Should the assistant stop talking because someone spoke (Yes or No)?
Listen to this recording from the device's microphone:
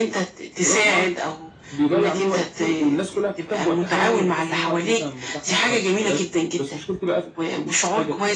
No